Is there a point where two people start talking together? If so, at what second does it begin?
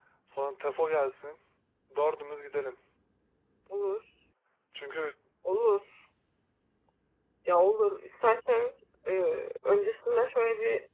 none

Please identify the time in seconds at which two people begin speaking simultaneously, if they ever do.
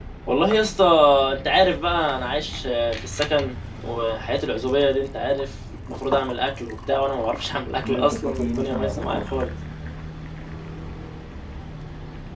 8 s

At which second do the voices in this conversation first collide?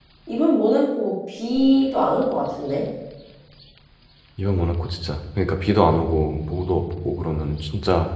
none

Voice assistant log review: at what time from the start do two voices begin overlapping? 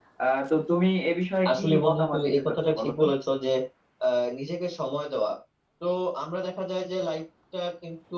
1 s

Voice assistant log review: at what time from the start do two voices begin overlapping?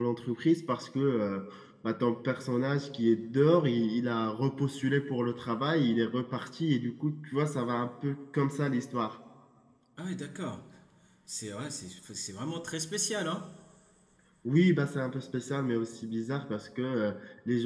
none

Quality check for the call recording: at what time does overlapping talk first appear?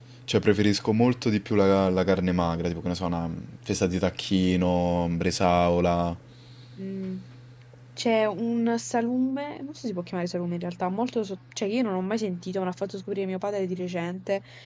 none

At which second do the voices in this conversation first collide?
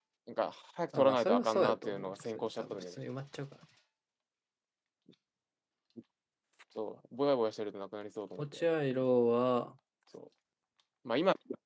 1 s

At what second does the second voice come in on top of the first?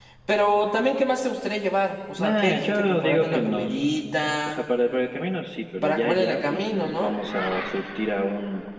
2 s

